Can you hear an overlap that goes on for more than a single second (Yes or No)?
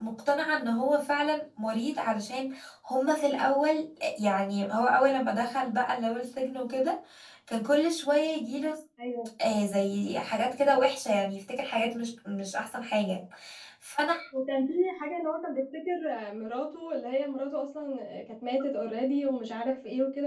No